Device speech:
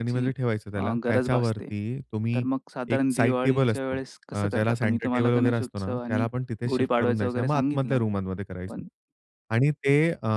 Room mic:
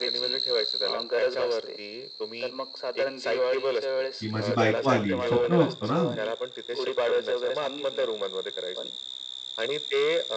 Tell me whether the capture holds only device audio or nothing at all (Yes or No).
No